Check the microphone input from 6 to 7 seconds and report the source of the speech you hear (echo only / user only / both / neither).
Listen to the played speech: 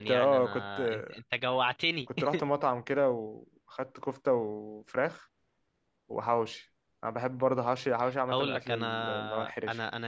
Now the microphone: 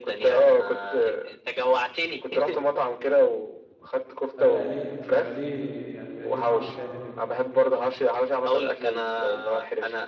both